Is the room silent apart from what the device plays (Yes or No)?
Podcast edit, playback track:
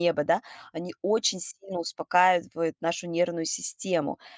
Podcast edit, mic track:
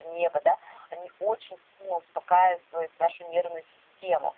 Yes